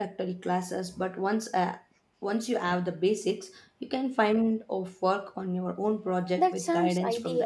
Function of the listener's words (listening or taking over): taking over